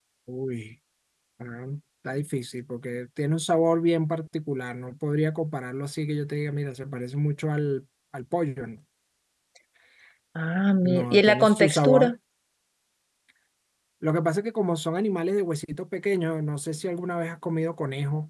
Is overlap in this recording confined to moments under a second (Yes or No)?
No